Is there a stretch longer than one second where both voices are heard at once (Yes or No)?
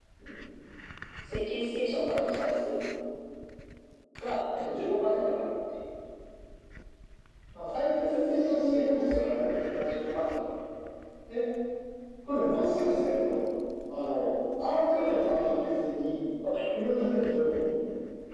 Yes